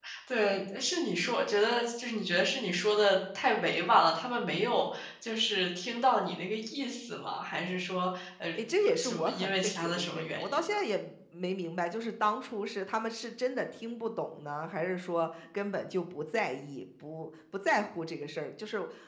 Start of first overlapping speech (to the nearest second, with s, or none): 9 s